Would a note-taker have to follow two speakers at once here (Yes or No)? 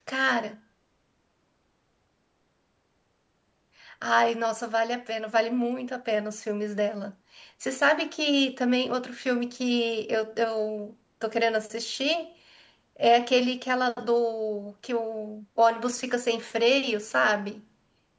No